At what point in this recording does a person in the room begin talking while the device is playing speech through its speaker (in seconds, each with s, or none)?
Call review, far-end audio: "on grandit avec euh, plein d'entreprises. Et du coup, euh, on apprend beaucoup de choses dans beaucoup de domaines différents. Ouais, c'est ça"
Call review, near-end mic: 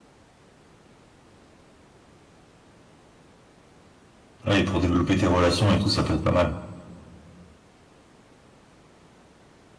4.4 s